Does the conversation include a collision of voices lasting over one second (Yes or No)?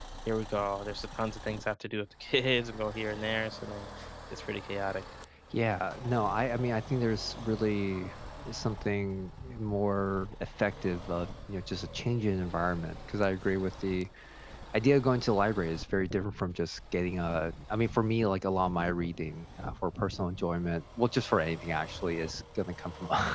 No